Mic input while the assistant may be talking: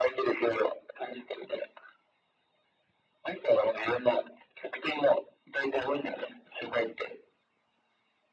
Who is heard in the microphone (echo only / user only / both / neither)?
echo only